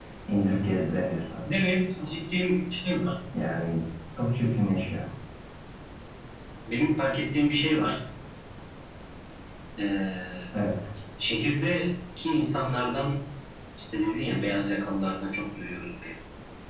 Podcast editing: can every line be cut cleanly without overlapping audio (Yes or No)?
Yes